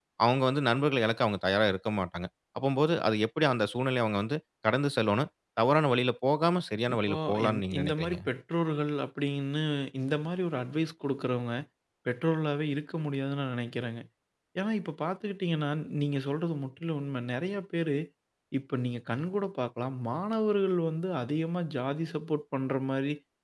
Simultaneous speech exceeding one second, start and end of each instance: 6.9-8.2

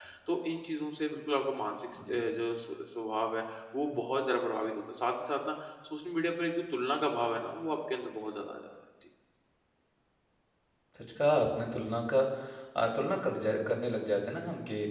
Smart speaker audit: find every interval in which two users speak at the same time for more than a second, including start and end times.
none

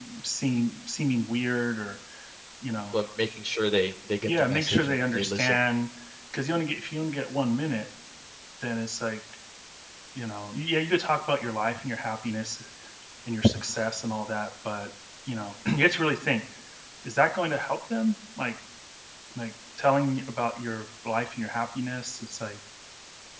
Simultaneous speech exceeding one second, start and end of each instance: 4.3-5.5

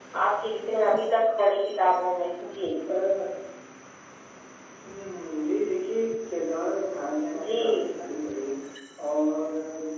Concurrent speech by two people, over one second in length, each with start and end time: none

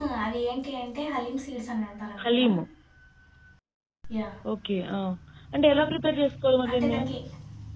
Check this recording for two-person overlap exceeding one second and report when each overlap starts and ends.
none

